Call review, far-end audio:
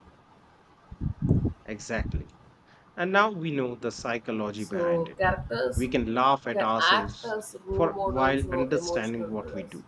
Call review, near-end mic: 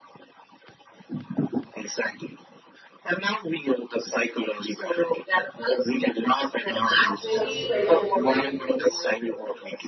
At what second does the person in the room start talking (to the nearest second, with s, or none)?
7 s